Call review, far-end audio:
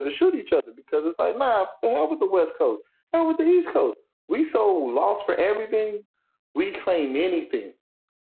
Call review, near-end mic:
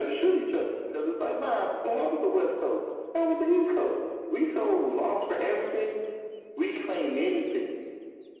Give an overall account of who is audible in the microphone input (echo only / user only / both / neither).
echo only